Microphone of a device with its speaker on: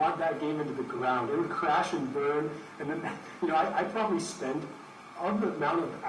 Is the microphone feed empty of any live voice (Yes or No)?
Yes